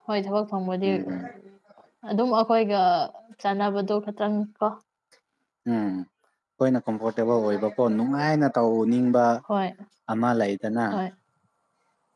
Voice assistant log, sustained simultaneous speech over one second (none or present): none